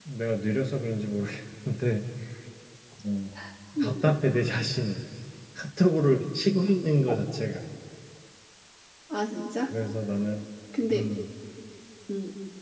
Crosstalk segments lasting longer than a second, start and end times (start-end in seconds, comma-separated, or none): none